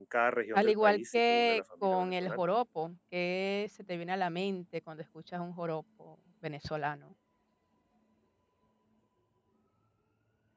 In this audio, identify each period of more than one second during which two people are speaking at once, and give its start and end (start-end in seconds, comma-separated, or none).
0.5-2.4